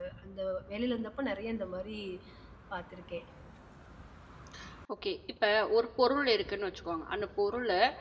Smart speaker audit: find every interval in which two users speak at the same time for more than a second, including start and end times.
none

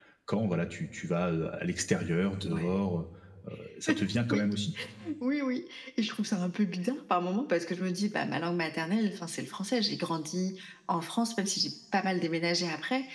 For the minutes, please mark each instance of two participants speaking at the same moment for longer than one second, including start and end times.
none

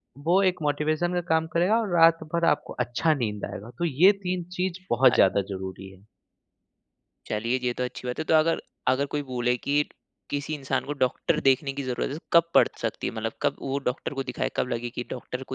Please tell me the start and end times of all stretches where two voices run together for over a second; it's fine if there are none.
none

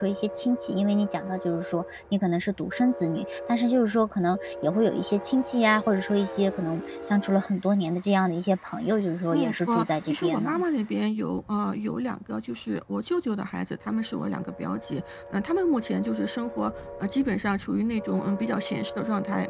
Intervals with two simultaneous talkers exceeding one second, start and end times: 9.3-10.6

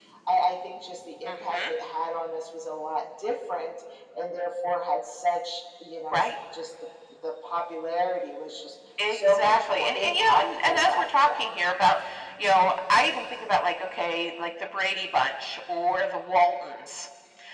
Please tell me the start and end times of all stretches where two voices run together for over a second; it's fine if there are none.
9.1-11.5

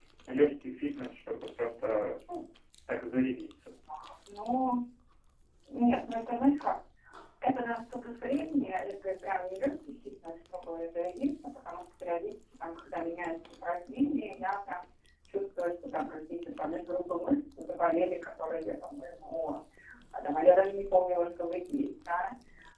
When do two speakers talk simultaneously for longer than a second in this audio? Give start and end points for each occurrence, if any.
none

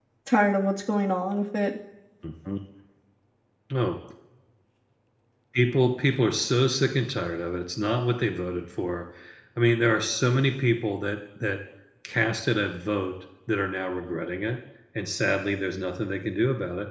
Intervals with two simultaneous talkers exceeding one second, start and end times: none

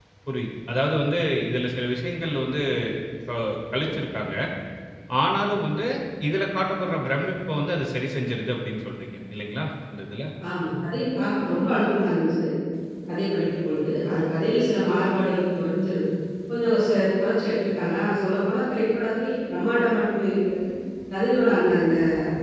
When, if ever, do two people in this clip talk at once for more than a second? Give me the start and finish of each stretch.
none

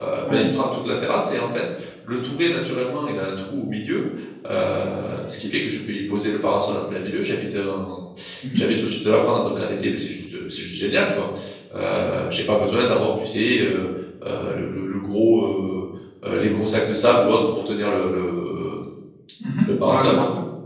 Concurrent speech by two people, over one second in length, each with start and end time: none

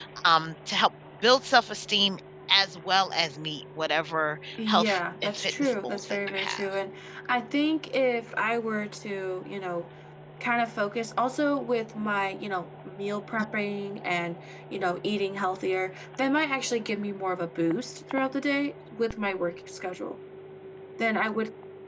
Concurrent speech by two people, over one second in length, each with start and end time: 4.7-6.6

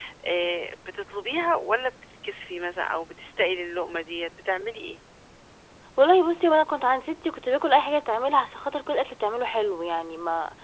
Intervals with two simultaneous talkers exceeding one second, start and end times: none

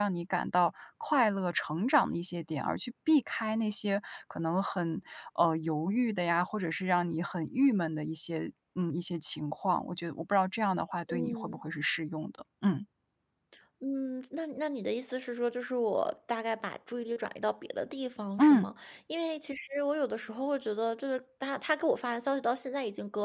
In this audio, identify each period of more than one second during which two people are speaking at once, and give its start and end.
none

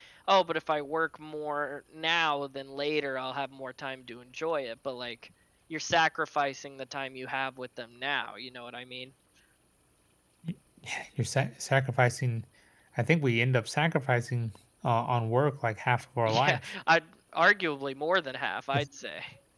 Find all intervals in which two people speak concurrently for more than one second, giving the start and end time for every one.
none

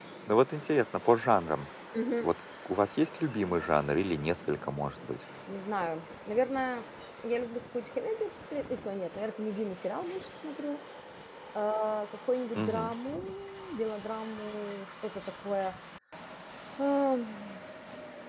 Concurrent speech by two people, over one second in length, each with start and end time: none

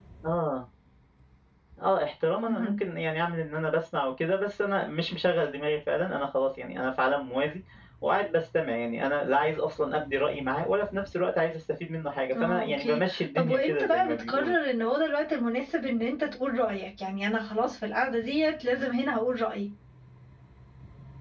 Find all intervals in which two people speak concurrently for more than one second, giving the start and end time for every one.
12.4-14.6

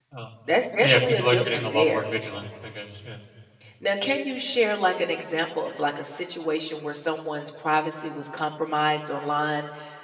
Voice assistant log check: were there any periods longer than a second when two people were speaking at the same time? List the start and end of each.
0.8-2.0

